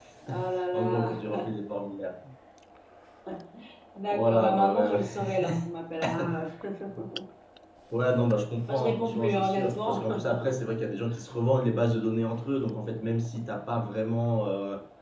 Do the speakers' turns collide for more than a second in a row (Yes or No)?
Yes